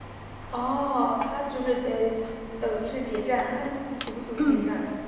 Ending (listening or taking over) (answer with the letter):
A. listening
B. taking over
B